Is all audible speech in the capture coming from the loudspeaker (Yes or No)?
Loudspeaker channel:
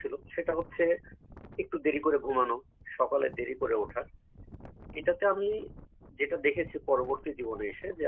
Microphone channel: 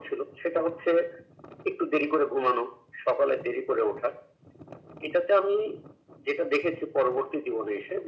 Yes